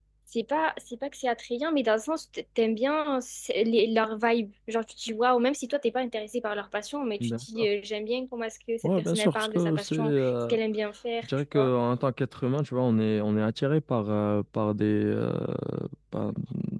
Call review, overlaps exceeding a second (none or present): present